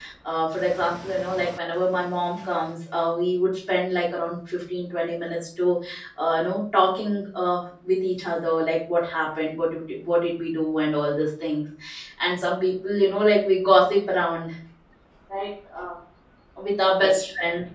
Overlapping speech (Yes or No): No